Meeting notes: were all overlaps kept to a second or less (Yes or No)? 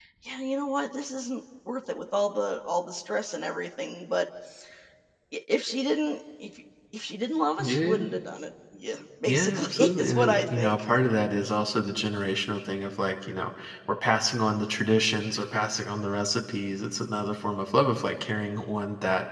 No